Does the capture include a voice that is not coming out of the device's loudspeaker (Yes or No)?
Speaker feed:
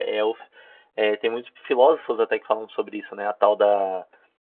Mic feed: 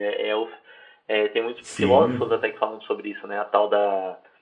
Yes